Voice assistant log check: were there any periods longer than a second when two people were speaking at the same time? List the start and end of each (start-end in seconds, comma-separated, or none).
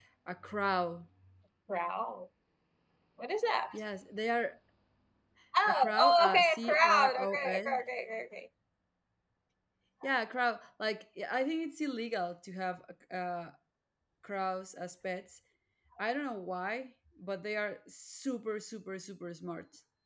5.7-7.6